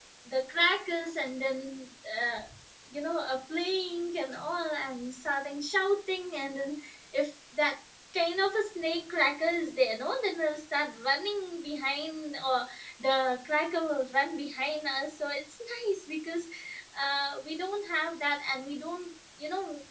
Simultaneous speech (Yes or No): No